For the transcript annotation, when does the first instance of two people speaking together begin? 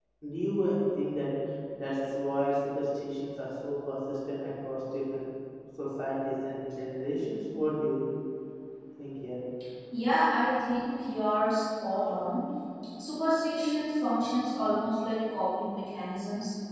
none

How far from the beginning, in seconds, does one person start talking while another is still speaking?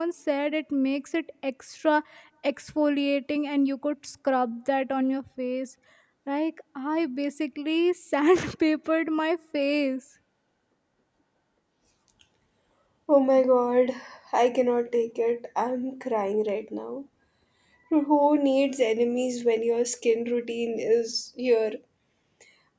none

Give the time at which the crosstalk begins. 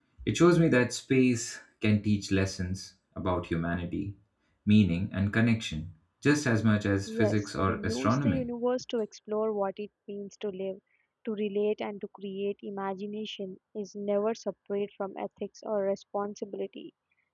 7 s

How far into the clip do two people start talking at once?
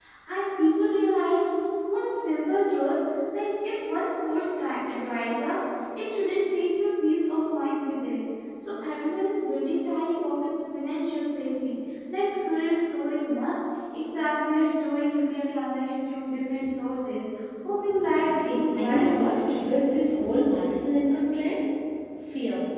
18 s

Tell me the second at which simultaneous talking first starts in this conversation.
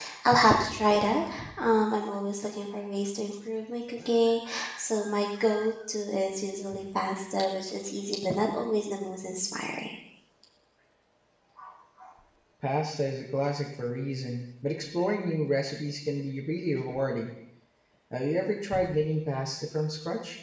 none

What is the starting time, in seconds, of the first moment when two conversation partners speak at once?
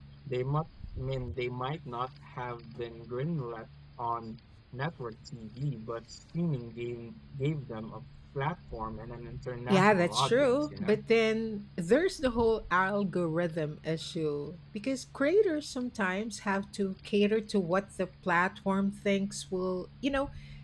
10 s

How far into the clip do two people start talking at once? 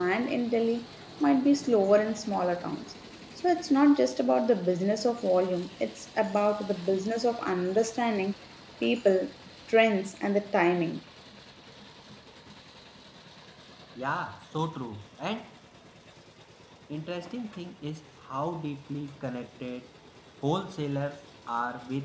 none

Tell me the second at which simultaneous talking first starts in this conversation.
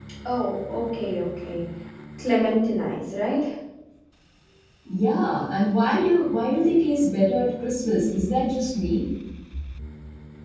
none

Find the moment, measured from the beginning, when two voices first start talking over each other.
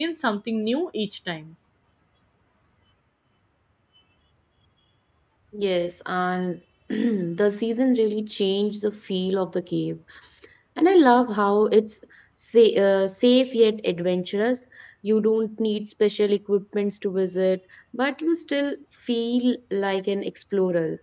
none

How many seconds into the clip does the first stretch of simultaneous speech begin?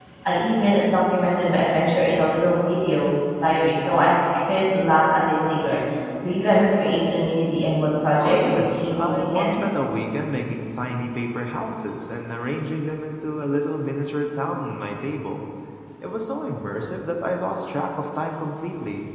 8 s

